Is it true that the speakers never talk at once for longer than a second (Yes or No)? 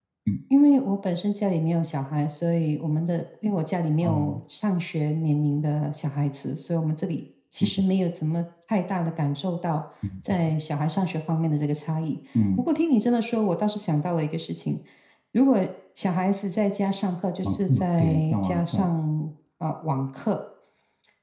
No